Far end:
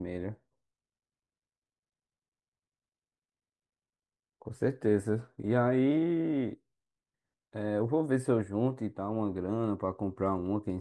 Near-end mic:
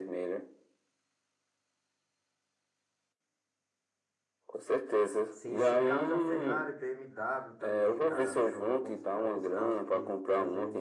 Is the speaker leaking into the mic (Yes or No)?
Yes